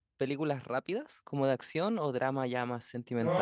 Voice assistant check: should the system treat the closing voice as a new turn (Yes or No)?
Yes